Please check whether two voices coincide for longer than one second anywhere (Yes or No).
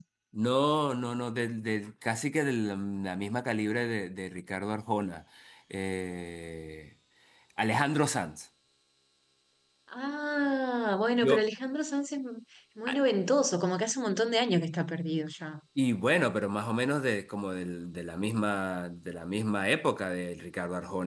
No